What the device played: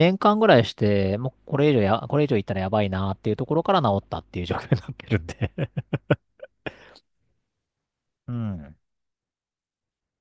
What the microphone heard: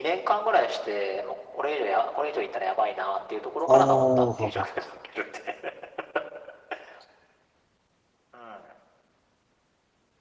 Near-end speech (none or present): present